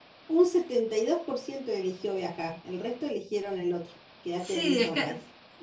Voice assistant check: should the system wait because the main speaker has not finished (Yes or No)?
No